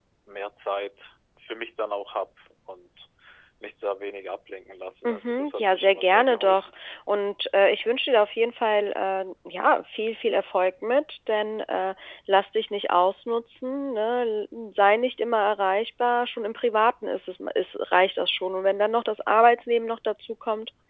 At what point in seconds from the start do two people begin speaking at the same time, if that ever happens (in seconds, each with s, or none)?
5.0 s